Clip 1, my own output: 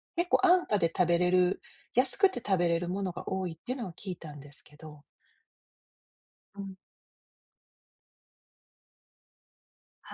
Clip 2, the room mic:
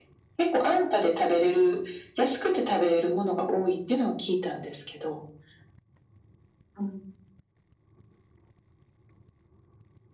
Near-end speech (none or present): none